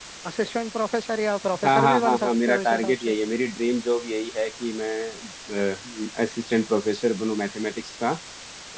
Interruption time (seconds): 1.5 s

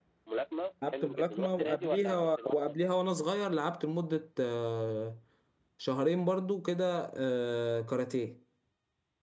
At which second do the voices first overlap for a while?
0.9 s

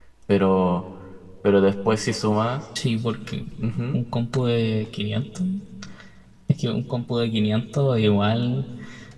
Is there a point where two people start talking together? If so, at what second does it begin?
none

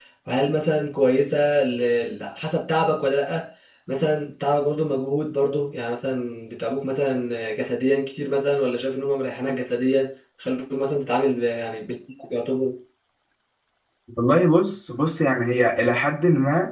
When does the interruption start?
none

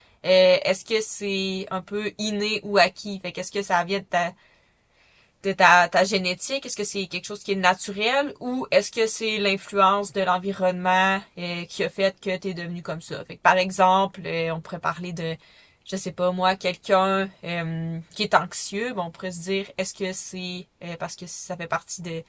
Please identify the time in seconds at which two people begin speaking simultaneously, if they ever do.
none

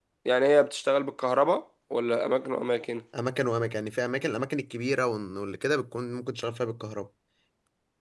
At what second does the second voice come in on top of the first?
none

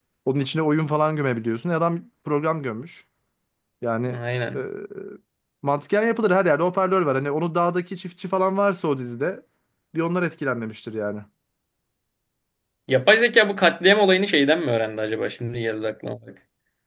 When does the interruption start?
none

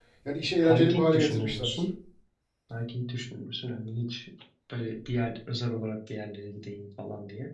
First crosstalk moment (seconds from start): 0.7 s

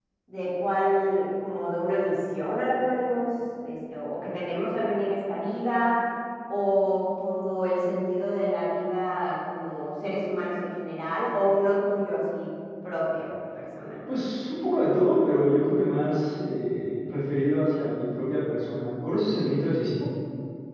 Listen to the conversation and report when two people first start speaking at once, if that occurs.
none

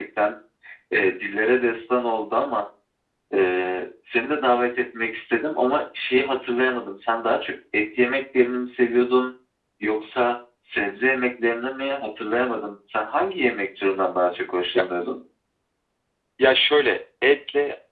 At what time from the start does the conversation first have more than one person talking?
none

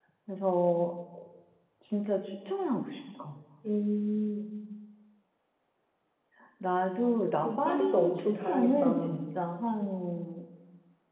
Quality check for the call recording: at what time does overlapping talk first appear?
7.4 s

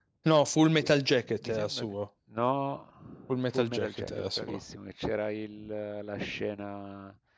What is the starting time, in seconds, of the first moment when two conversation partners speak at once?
0.7 s

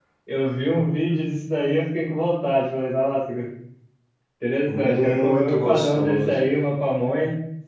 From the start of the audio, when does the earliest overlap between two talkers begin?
4.7 s

